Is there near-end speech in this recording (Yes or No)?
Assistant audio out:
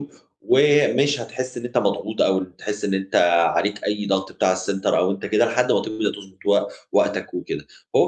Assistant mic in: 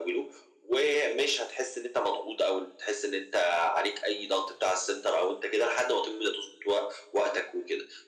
No